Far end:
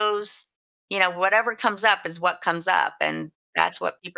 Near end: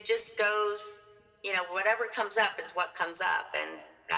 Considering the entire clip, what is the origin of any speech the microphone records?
echo only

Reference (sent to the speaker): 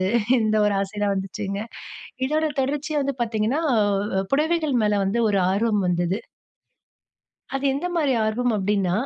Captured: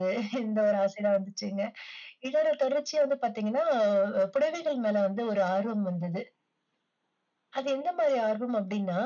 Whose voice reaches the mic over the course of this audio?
echo only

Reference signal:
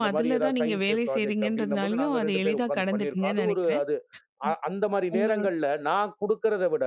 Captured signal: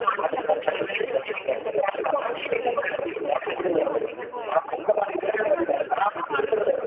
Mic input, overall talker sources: both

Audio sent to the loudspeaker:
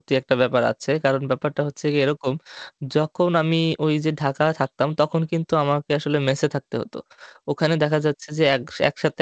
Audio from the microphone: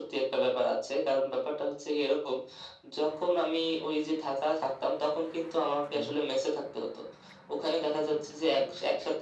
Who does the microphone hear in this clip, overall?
both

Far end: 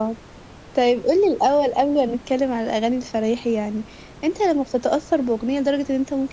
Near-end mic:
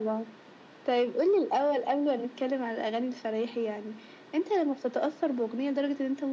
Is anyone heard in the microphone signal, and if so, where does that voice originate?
echo only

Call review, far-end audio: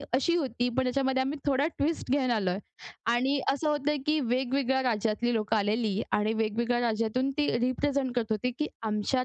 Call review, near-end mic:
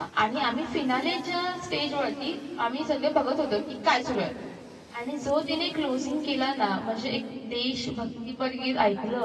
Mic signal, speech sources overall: user only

